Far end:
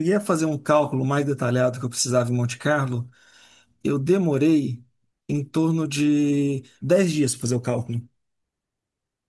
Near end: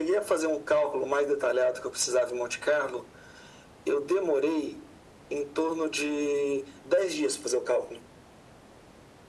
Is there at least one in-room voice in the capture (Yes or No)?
No